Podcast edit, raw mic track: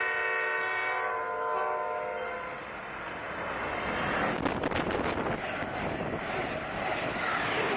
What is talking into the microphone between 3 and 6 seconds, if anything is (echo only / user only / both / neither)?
neither